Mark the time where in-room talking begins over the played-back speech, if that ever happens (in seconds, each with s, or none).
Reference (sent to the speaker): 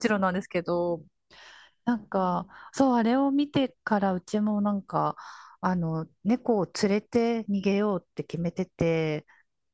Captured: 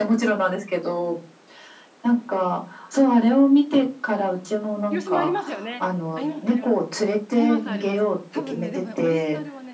4.9 s